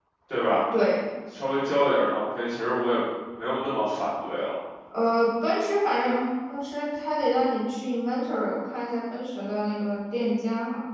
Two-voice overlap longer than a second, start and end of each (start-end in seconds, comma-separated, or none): none